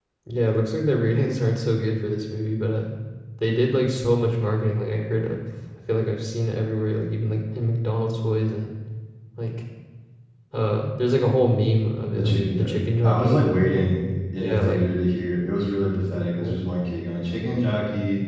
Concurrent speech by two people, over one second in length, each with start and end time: 12.2-13.4

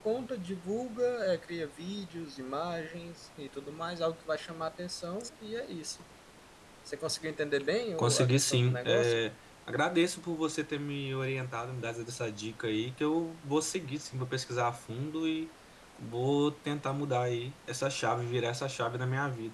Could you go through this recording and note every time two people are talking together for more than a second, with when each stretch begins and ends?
8.0-9.2

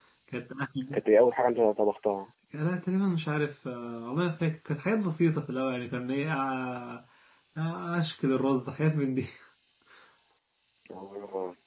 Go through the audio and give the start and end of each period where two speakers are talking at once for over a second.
none

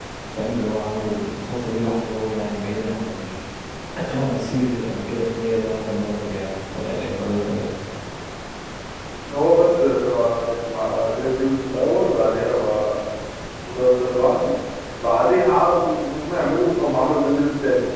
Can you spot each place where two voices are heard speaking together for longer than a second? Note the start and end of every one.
none

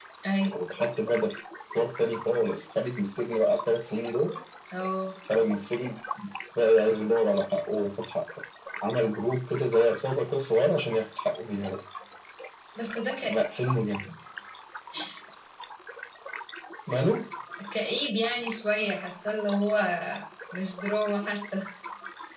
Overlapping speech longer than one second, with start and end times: none

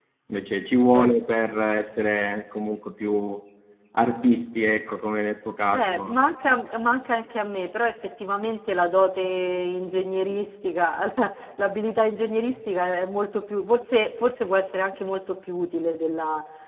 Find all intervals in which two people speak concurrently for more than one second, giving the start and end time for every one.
none

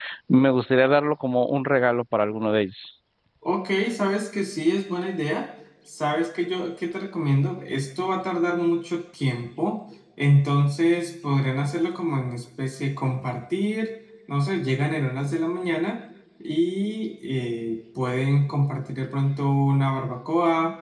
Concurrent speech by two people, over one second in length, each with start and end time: none

